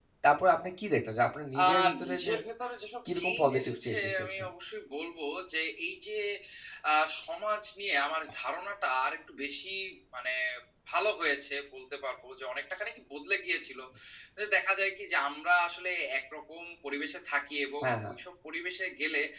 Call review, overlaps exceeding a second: present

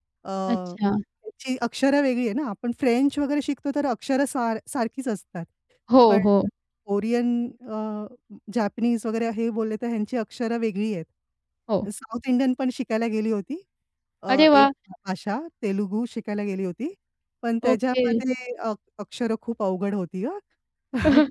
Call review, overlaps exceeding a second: none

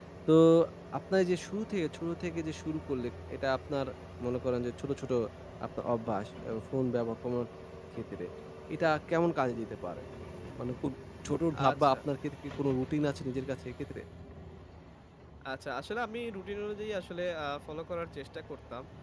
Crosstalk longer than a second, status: none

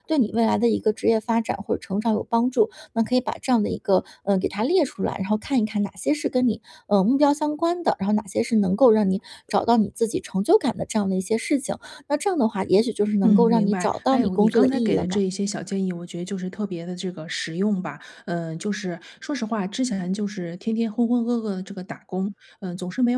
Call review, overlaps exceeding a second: present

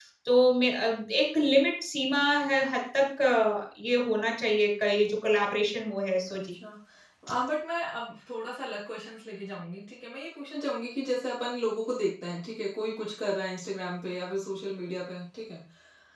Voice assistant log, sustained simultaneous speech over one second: none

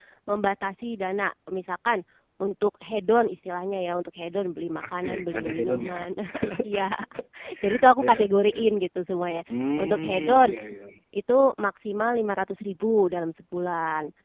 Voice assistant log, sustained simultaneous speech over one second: present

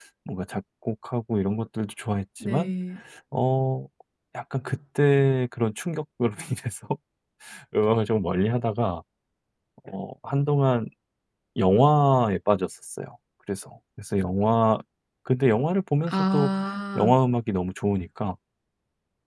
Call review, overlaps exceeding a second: none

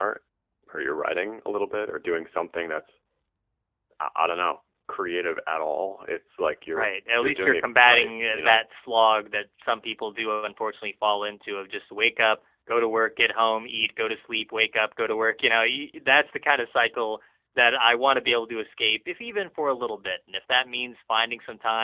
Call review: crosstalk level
present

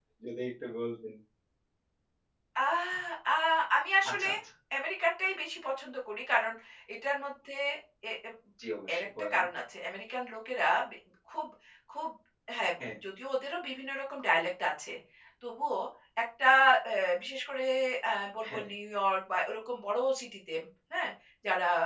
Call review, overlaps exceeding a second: none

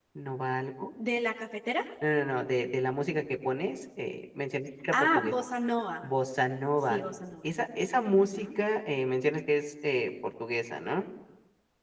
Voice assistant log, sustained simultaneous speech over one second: none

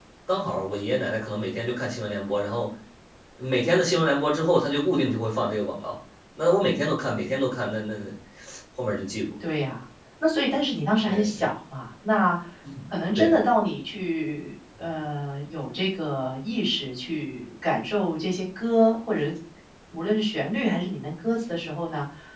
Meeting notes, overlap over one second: none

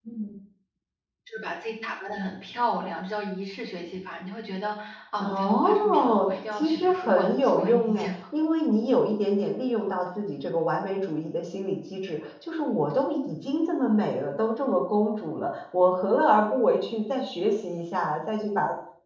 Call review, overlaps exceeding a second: present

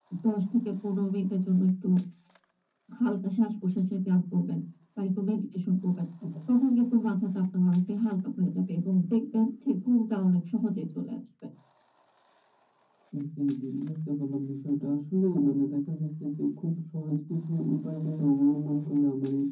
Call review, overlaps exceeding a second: none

